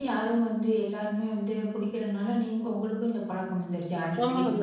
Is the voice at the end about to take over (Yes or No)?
Yes